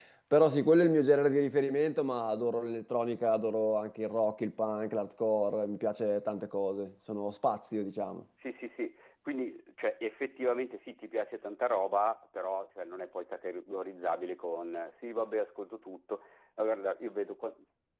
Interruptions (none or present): none